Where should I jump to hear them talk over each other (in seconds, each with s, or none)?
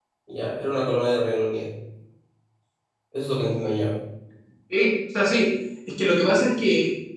none